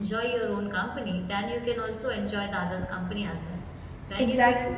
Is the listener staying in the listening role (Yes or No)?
Yes